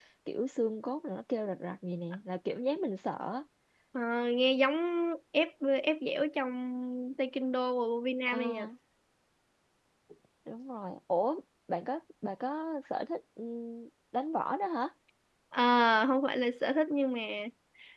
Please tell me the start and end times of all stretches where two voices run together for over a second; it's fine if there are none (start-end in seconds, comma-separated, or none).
none